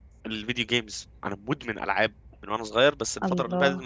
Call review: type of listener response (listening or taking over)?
listening